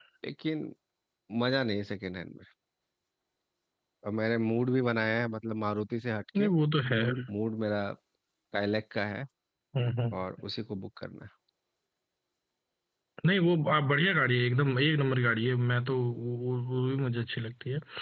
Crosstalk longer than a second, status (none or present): none